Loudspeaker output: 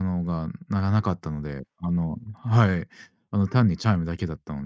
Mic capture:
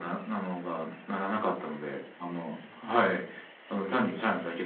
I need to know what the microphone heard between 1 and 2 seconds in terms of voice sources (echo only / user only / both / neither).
echo only